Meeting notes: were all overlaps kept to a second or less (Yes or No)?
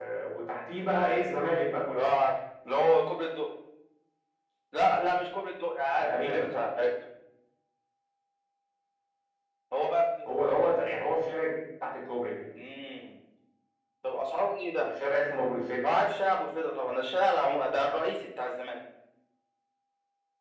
Yes